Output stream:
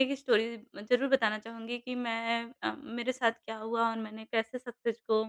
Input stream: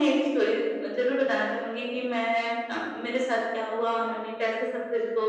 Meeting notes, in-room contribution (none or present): none